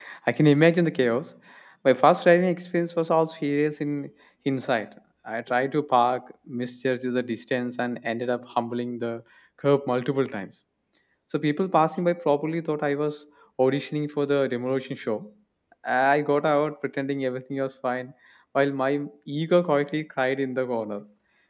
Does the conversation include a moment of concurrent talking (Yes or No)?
No